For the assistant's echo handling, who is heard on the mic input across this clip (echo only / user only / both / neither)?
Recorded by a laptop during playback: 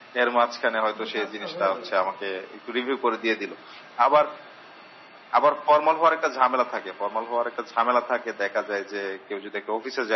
both